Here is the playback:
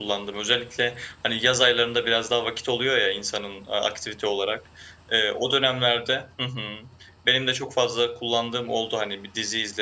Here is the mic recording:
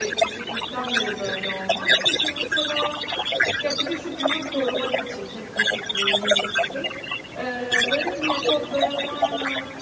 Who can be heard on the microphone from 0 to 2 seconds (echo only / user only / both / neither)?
both